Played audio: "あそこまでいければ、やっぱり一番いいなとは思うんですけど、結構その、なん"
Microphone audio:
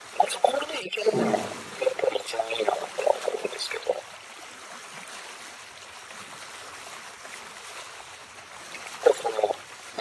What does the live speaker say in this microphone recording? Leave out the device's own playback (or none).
そうなん